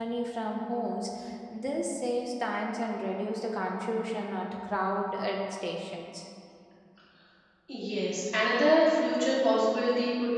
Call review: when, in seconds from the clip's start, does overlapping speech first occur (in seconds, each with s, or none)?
none